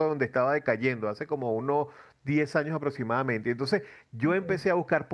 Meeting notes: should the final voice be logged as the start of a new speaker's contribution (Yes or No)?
No